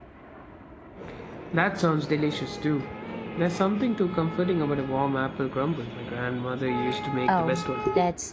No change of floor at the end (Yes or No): No